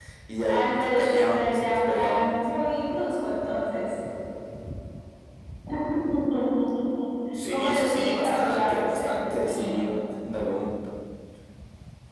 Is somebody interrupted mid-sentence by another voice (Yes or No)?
Yes